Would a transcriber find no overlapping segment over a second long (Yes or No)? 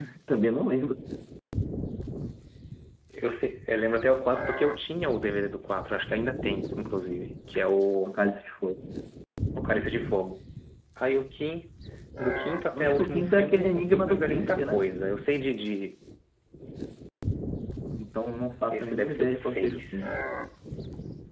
No